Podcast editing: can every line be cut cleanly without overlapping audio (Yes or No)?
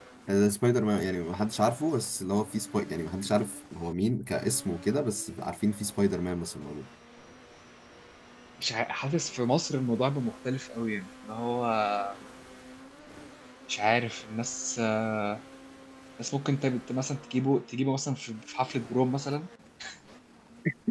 Yes